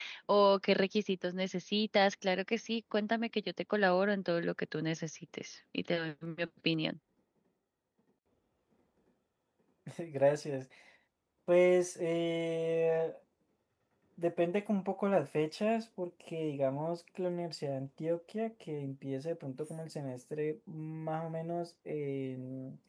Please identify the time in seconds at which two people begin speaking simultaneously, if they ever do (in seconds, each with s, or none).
none